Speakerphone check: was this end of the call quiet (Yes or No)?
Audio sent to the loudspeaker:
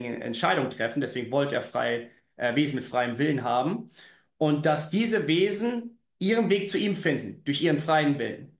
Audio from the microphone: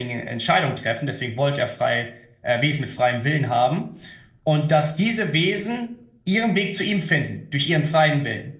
Yes